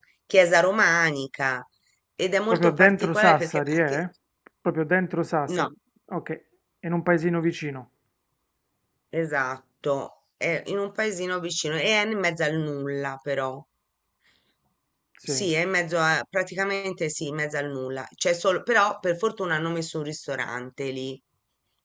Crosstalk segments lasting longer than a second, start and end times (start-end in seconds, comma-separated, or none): 2.5-4.0